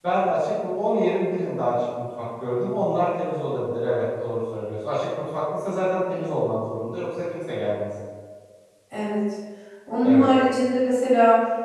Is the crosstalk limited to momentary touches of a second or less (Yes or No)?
Yes